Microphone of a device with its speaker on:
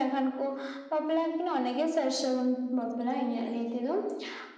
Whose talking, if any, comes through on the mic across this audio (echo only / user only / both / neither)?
echo only